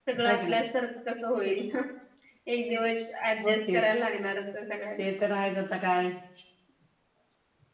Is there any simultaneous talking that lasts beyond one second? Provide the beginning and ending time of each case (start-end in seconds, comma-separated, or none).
none